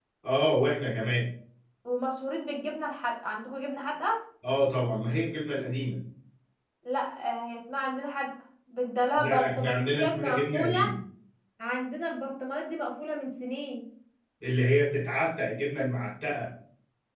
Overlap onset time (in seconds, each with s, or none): 9.2 s